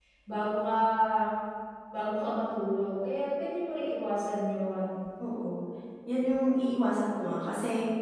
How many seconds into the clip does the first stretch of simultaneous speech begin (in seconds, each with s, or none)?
none